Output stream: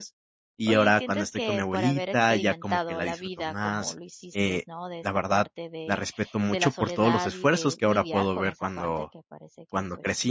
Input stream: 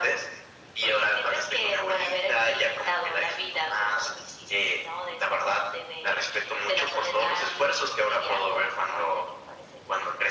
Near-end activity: none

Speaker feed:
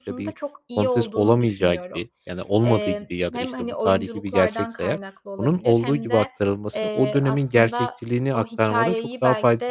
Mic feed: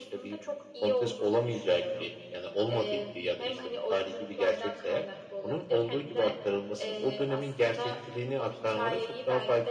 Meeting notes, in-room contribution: none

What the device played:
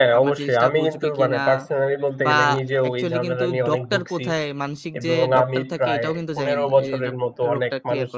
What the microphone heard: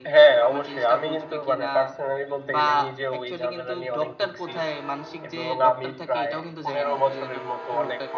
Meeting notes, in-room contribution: none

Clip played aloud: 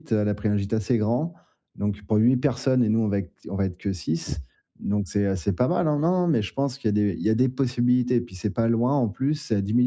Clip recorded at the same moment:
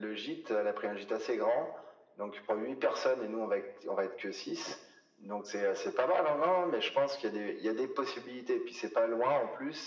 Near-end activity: none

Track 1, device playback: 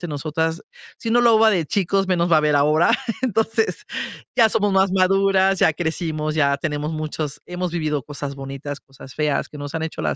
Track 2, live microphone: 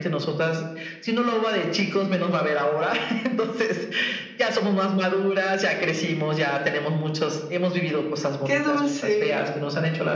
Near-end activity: present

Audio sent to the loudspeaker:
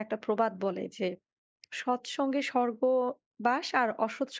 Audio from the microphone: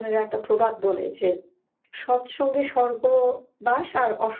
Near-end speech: none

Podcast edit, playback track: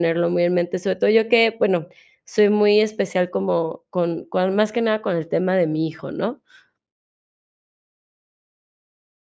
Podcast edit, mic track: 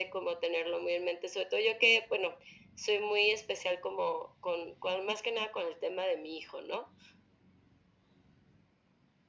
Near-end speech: none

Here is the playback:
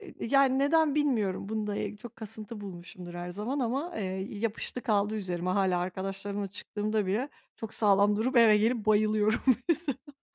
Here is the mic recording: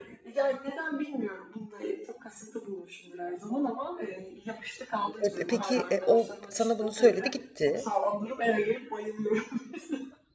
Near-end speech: present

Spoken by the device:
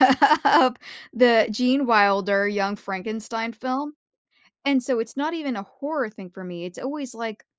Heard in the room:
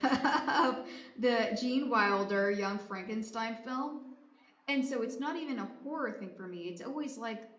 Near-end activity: none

